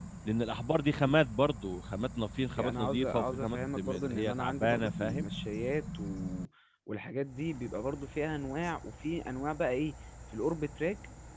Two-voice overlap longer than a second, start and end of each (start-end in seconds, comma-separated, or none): 2.6-5.3